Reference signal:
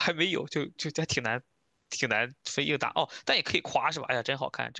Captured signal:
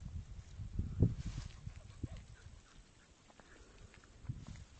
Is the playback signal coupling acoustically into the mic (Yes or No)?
No